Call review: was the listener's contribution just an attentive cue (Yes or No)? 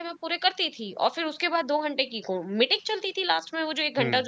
Yes